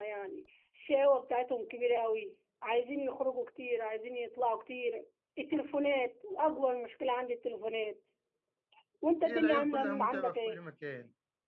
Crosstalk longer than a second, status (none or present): present